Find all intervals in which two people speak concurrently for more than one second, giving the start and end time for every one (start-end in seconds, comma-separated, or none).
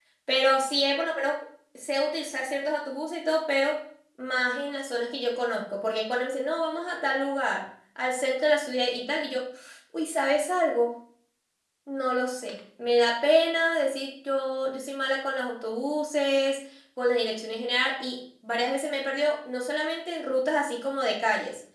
none